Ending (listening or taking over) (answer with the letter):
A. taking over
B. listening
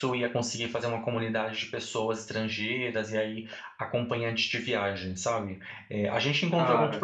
B